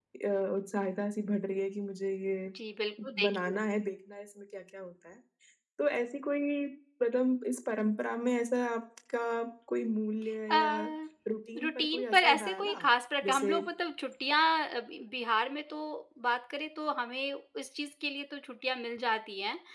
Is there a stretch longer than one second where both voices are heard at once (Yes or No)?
Yes